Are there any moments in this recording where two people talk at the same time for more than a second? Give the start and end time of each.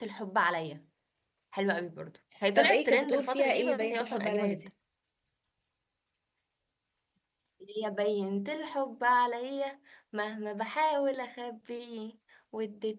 2.6-4.7

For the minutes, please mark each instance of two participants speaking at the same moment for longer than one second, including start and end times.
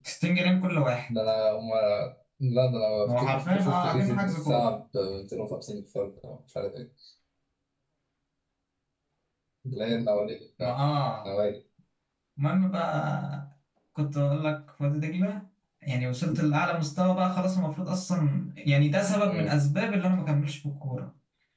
3.1-4.7

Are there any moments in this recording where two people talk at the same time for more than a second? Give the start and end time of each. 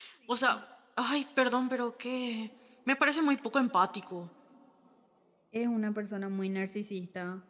none

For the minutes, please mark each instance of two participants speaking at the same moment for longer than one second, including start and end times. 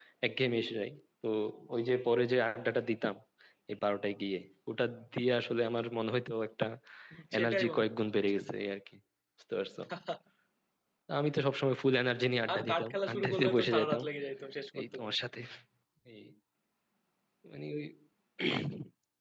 12.5-14.0

